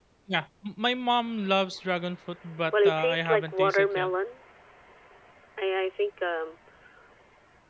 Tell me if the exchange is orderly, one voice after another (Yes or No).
No